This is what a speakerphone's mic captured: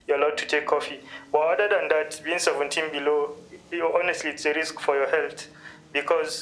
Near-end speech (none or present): none